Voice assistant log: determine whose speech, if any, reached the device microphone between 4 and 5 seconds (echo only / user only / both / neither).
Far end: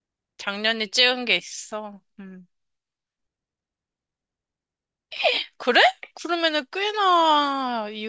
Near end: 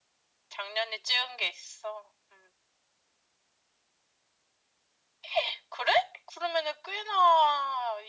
neither